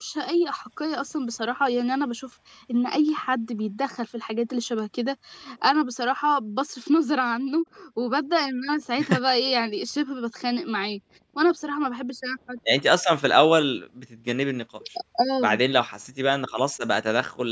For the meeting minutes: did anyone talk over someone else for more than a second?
No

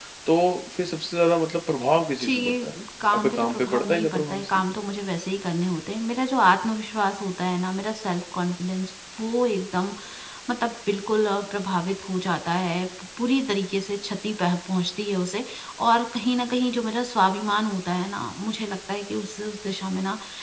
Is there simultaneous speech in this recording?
Yes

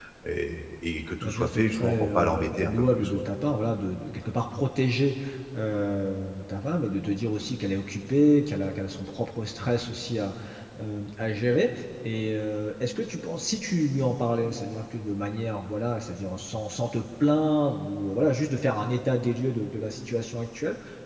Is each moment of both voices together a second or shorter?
No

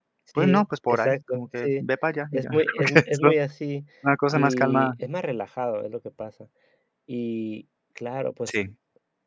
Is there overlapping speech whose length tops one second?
Yes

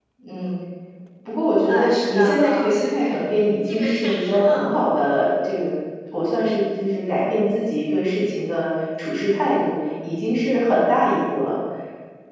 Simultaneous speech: Yes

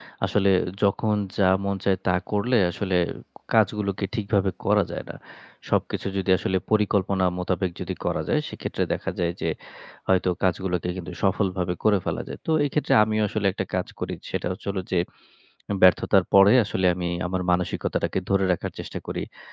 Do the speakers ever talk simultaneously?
No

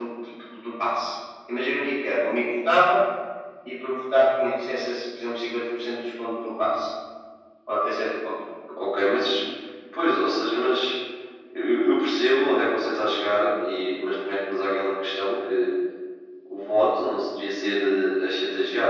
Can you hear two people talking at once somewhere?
No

